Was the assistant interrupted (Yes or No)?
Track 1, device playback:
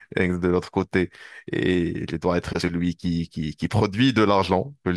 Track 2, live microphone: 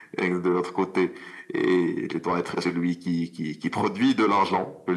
No